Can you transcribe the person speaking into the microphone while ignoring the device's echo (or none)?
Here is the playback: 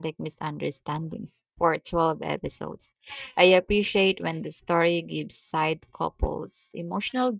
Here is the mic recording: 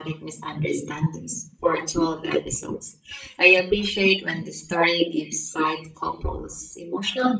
none